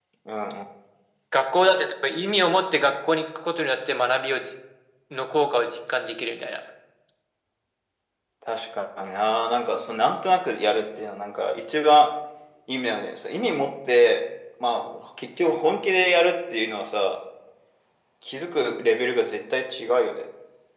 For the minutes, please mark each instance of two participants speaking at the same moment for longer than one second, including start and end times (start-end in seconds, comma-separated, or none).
none